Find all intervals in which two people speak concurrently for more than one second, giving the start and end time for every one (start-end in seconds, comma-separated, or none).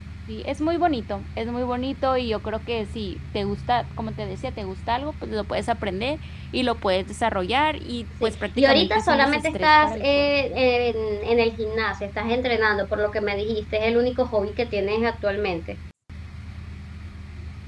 8.2-10.3